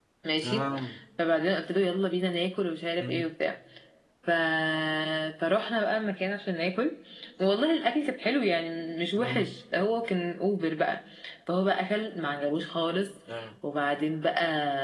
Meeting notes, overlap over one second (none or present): none